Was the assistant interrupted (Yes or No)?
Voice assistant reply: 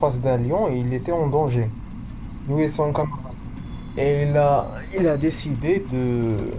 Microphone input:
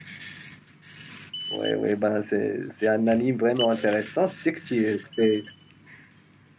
Yes